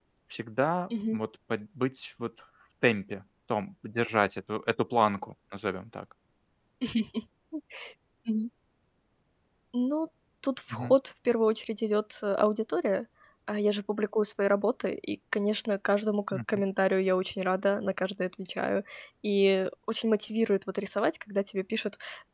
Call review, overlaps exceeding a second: none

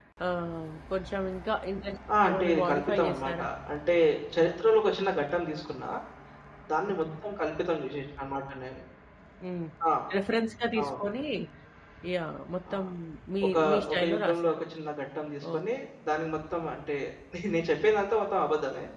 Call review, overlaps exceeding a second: present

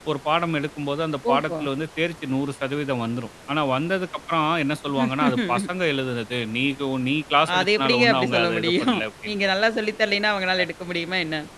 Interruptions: present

